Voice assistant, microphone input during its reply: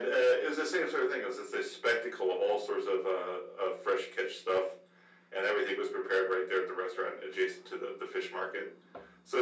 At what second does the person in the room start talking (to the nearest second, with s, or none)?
none